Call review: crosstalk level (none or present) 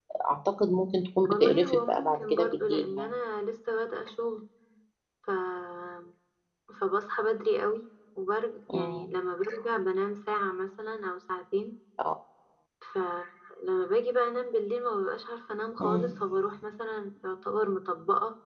present